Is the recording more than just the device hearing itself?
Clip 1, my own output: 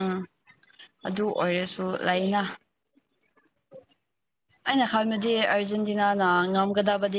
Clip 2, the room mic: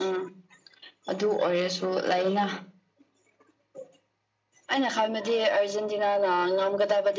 No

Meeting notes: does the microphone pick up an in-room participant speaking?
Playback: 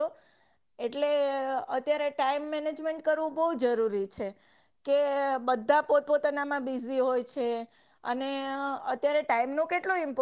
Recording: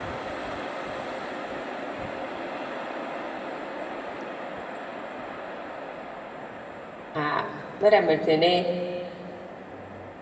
Yes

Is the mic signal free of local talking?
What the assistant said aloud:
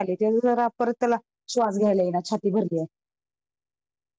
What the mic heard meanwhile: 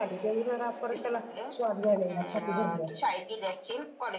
No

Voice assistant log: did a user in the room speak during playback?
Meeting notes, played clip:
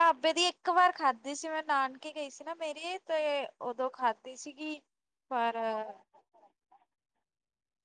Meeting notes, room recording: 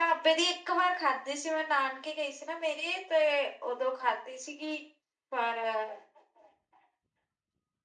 No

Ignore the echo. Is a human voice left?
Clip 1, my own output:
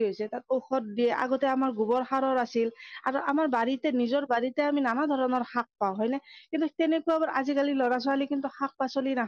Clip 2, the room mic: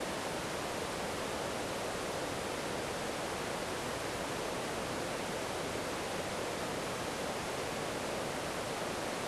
No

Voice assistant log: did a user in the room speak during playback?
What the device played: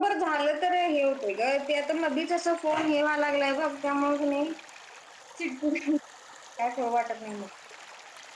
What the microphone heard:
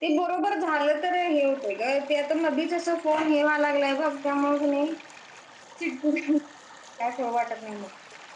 No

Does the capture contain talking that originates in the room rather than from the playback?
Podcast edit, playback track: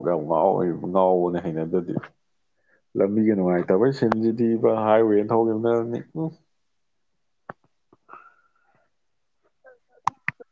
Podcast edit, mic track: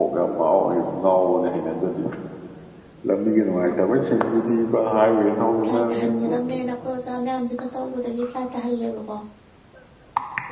Yes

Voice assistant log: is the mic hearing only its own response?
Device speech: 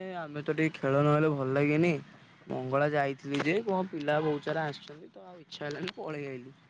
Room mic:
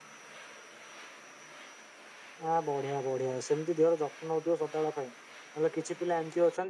No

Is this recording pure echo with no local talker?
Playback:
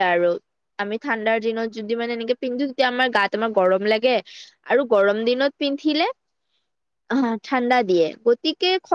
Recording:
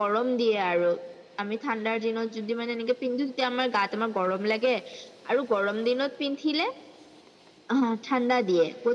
Yes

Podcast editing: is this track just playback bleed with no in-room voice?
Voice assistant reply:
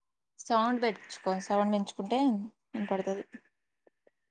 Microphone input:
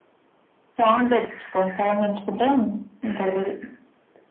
Yes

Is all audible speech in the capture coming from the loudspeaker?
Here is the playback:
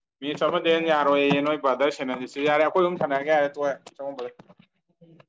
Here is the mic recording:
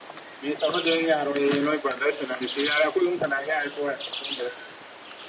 Yes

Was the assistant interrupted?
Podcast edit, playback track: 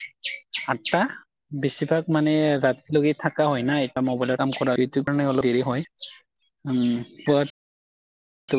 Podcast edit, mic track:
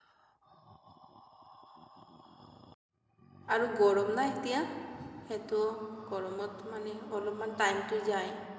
Yes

